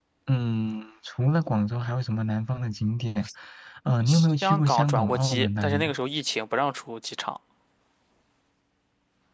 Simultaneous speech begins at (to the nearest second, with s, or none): 4 s